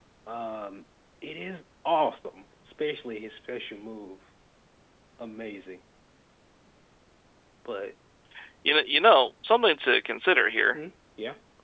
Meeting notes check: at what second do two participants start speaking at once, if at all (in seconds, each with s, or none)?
none